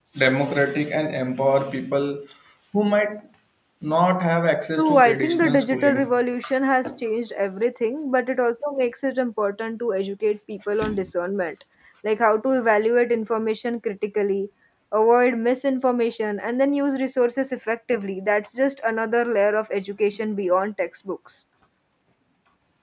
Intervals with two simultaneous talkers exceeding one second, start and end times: 4.8-6.0

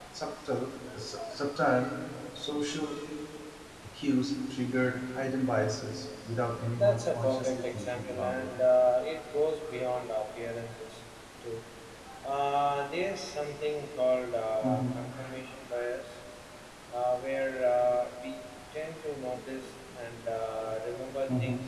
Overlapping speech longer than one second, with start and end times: 6.8-8.5

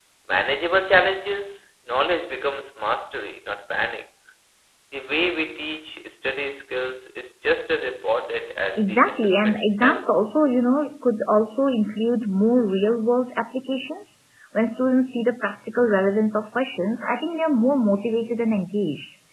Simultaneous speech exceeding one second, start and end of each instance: 8.8-10.0

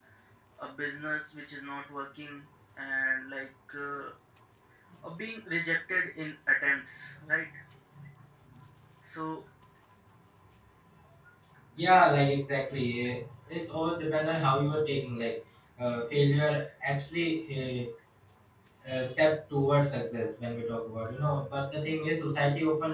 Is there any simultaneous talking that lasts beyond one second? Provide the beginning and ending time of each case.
none

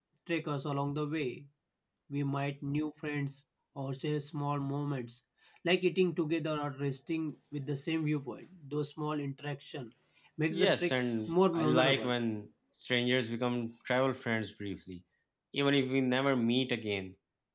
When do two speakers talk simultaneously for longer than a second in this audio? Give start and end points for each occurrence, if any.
10.5-12.1

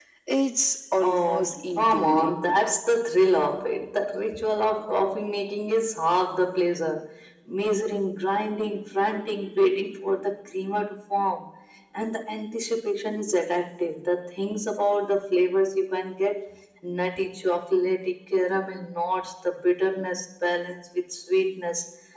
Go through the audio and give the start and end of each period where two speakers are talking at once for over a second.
1.0-2.6

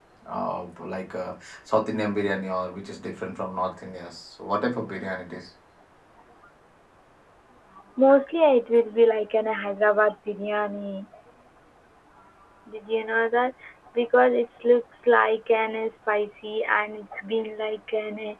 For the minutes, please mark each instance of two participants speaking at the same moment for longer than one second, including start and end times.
none

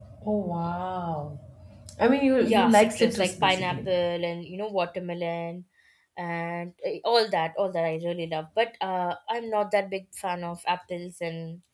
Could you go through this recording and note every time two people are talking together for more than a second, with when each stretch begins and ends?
2.4-3.9

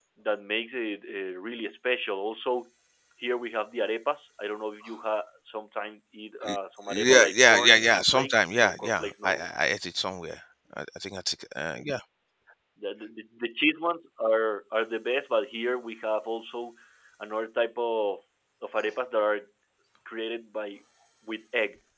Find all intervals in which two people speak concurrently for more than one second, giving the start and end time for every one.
7.1-9.5

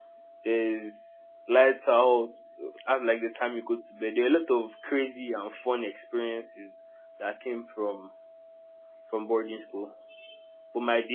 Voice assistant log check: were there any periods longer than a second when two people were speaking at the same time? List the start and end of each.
none

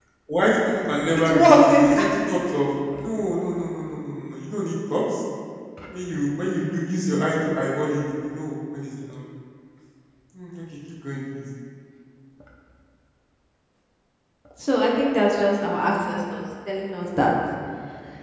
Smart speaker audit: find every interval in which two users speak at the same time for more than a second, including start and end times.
1.2-2.4

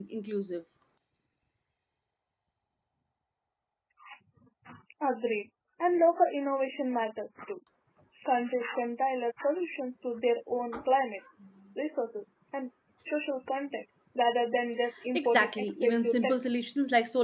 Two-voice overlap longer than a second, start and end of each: 15.1-16.4

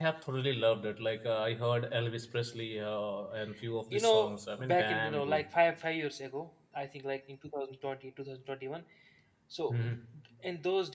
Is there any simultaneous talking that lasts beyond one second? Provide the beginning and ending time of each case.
3.9-5.4

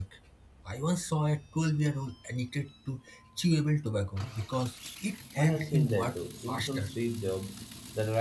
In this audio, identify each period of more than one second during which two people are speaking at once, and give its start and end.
5.4-6.9

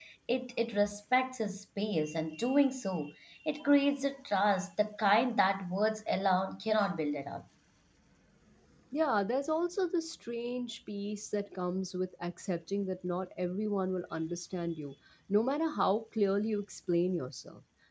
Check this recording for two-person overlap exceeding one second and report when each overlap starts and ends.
none

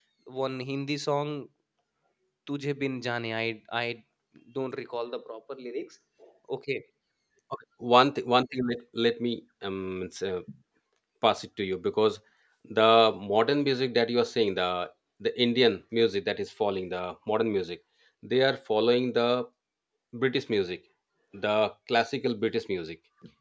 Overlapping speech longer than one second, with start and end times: none

